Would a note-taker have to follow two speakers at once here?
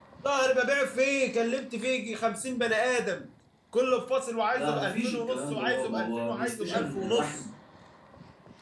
Yes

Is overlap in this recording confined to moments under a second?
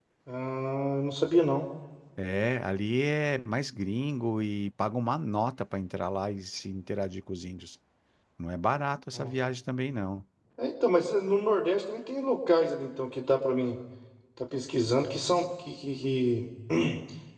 Yes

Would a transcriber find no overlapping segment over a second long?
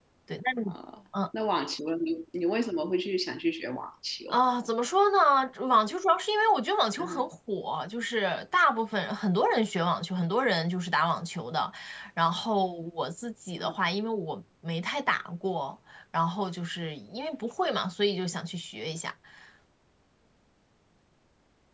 Yes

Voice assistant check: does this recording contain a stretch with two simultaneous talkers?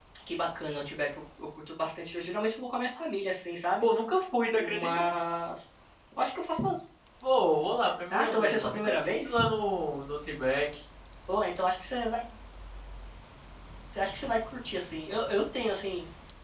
Yes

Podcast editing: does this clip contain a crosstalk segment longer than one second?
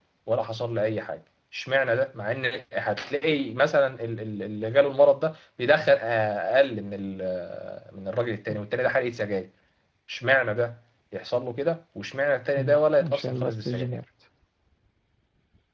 Yes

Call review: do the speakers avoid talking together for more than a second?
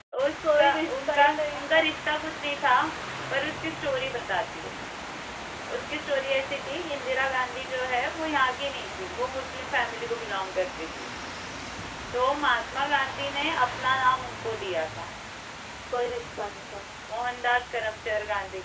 No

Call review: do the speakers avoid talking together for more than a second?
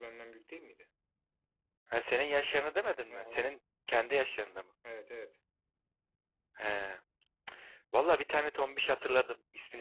Yes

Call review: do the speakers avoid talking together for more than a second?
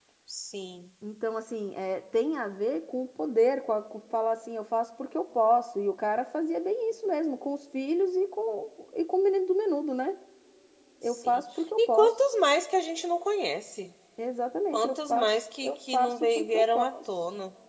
No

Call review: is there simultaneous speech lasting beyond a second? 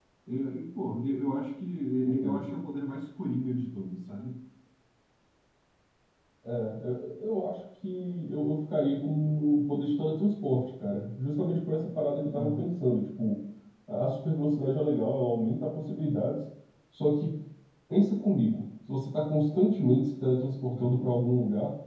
No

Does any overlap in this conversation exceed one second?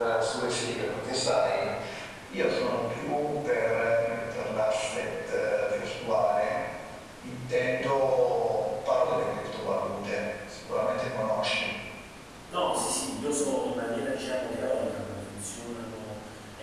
No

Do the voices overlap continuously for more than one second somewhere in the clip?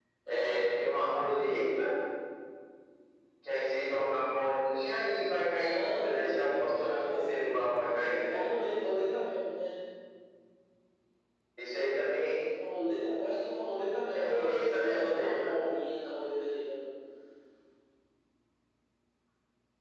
Yes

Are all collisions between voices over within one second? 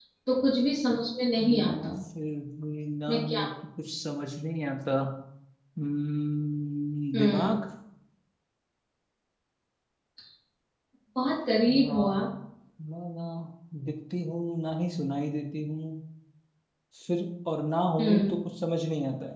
Yes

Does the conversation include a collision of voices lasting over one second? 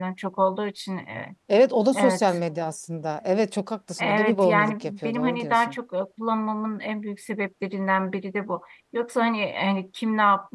Yes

